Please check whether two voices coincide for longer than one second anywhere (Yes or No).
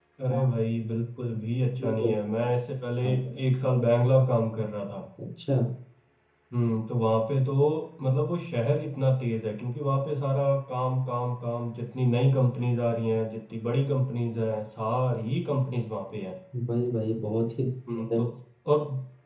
No